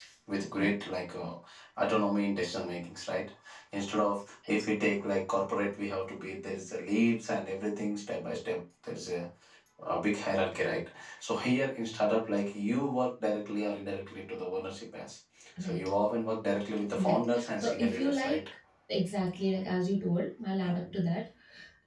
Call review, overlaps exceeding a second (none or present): present